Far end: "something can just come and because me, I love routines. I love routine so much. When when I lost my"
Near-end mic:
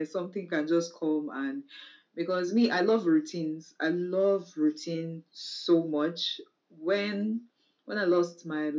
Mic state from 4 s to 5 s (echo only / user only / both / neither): echo only